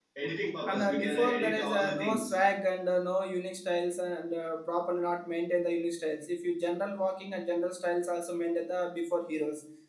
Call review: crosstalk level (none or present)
present